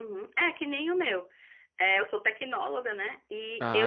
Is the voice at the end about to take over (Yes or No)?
No